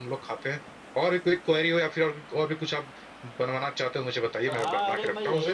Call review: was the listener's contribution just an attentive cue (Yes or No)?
No